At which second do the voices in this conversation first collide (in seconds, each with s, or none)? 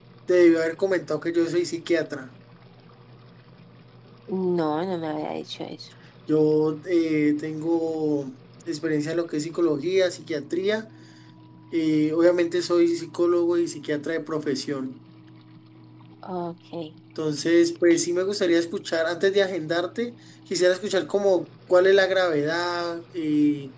none